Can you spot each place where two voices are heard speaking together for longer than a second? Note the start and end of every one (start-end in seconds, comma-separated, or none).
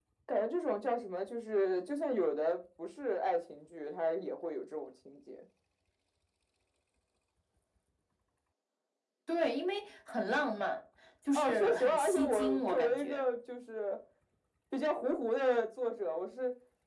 11.3-13.2